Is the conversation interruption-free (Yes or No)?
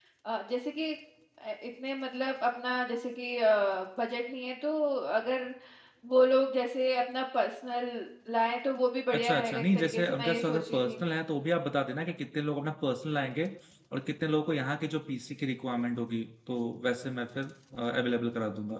No